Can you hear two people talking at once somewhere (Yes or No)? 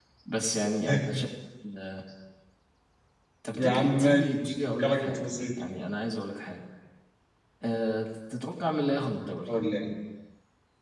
Yes